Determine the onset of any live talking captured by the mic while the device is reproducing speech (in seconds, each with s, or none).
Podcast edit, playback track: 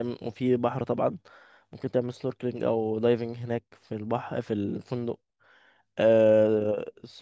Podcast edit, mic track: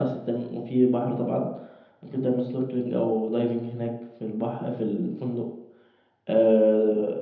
none